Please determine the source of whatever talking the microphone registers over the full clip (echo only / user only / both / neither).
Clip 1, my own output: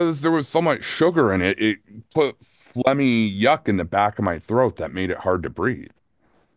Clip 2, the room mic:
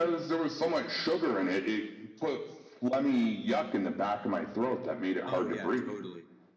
both